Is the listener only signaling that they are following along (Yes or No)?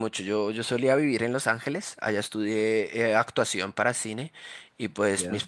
Yes